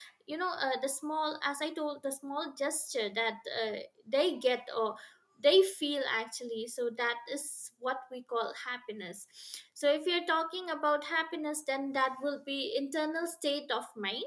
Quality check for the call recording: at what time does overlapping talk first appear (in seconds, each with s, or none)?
none